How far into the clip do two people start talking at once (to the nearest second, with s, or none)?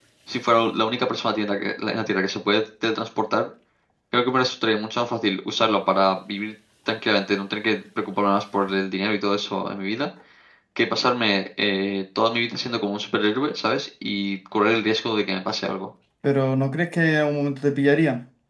none